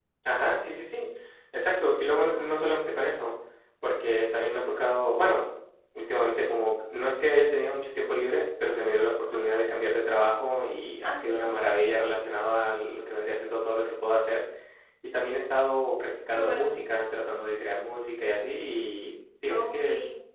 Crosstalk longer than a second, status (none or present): none